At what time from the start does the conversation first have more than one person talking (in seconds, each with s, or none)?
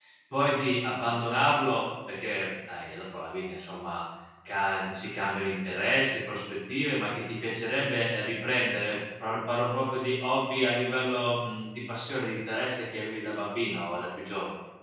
none